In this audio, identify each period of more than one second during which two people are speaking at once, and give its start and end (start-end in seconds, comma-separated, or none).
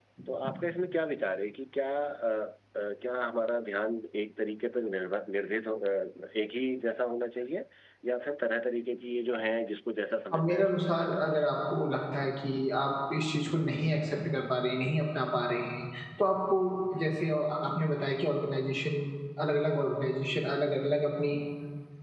10.3-11.6